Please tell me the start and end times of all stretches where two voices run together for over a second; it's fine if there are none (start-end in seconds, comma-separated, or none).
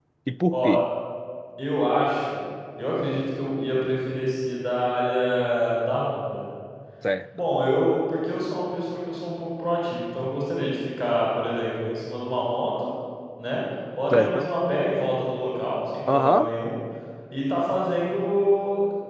none